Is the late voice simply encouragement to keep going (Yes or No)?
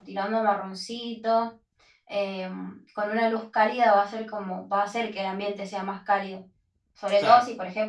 Yes